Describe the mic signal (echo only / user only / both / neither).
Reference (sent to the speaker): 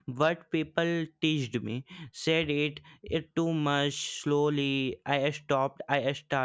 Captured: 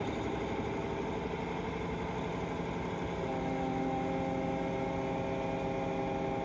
neither